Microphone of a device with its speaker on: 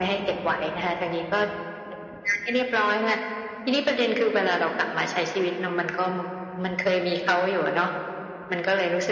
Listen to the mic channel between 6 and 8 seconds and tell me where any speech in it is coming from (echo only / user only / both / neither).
echo only